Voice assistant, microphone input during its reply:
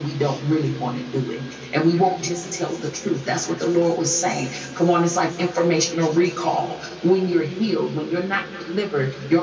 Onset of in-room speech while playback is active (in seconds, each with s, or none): none